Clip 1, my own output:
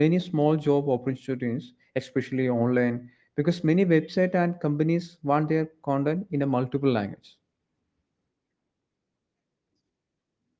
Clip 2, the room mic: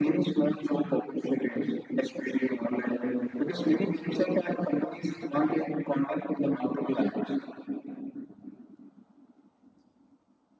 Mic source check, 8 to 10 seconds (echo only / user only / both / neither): neither